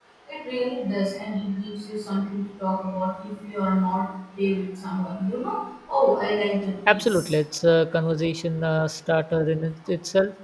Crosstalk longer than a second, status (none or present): none